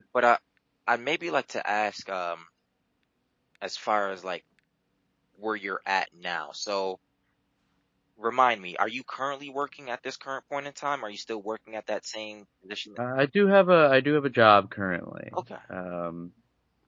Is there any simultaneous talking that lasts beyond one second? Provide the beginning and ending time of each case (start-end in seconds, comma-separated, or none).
none